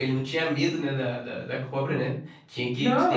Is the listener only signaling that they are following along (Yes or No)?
No